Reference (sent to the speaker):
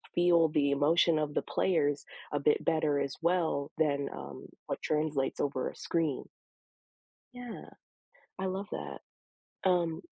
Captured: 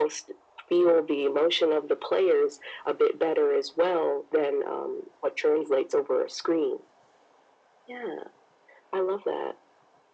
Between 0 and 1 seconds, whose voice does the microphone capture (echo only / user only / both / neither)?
echo only